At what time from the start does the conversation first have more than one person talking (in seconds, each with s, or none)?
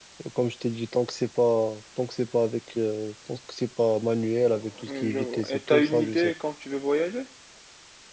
4.8 s